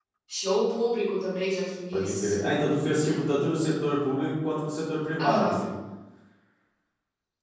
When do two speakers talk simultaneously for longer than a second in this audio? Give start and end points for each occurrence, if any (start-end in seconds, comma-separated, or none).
none